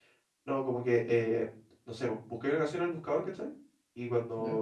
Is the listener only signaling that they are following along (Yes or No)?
Yes